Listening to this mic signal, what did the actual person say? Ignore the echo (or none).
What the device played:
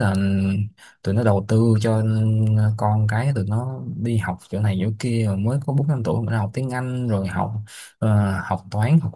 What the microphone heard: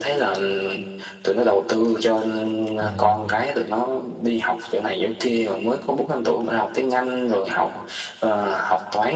dạ dạ dạ